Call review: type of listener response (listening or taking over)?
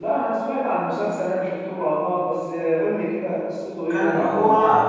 taking over